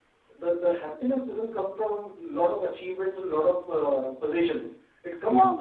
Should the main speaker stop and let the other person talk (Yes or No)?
No